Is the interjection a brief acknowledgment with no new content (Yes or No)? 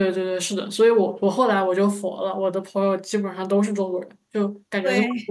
Yes